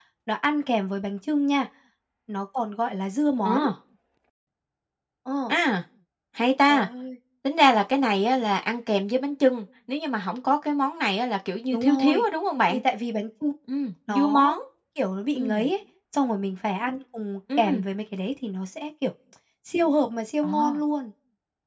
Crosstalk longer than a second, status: none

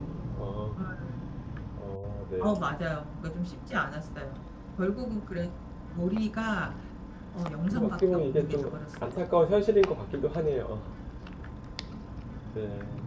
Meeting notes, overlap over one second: present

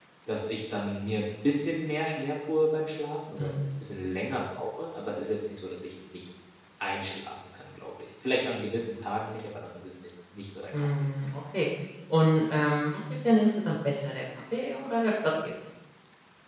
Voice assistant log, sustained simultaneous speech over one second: none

